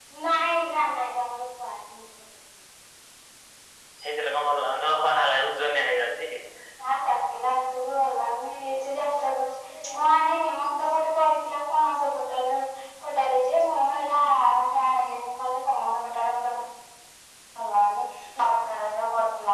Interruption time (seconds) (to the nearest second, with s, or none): none